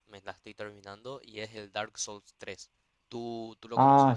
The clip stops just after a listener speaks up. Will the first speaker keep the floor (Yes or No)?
No